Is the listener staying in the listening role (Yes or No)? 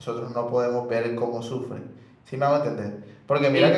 Yes